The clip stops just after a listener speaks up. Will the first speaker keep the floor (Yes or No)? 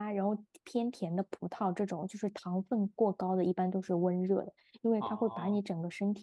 Yes